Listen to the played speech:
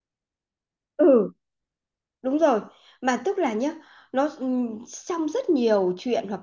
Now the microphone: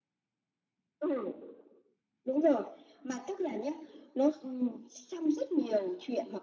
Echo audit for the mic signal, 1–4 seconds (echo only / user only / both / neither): echo only